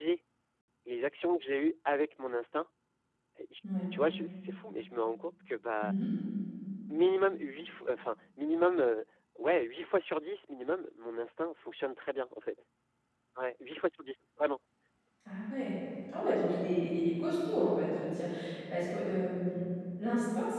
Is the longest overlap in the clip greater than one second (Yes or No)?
No